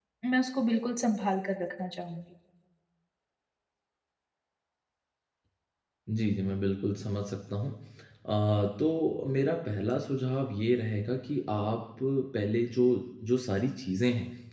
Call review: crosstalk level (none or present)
none